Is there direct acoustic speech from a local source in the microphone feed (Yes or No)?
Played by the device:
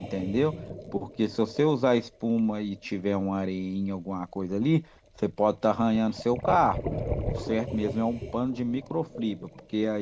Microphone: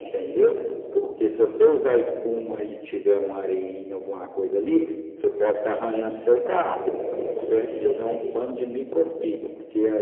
No